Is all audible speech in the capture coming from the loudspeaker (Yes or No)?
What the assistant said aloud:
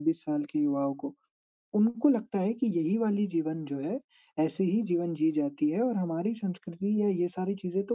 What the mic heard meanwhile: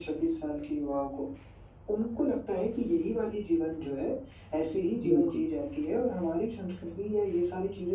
No